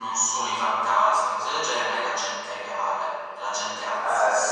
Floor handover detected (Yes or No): Yes